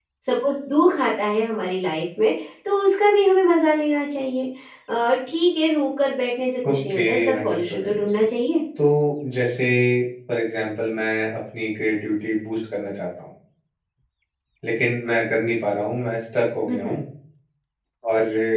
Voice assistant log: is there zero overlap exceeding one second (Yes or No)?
No